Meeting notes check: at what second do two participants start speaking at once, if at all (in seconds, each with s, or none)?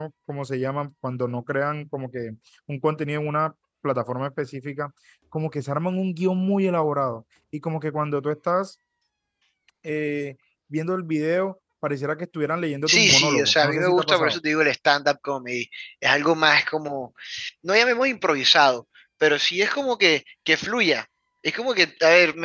12.9 s